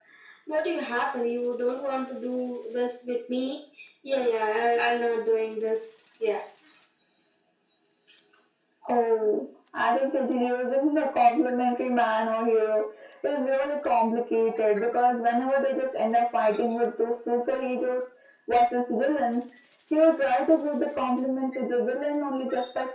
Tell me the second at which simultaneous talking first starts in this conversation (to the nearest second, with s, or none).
none